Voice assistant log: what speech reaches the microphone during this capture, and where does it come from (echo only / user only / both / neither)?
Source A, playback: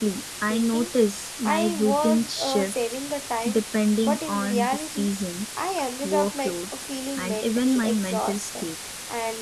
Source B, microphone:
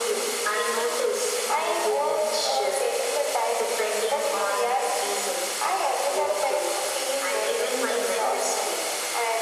echo only